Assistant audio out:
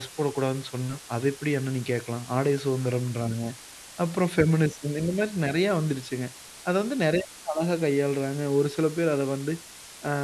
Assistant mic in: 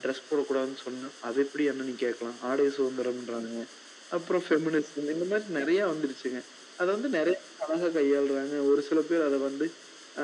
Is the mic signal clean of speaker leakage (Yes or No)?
No